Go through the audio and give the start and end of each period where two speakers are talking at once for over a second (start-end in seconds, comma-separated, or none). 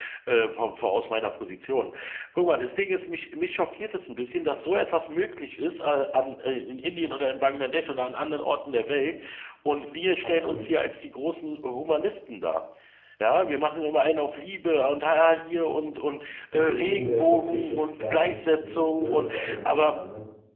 16.5-19.9